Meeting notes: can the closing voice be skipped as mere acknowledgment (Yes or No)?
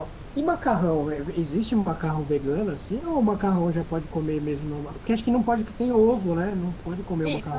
No